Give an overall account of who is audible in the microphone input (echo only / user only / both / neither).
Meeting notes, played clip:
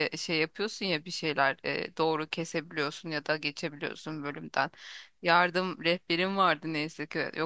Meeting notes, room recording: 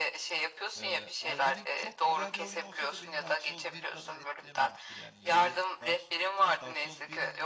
both